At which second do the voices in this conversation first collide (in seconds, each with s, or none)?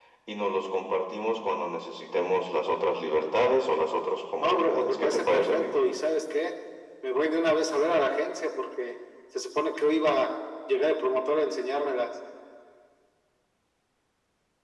4.4 s